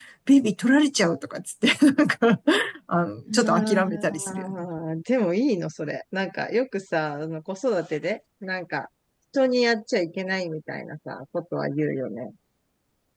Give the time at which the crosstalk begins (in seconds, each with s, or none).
3.4 s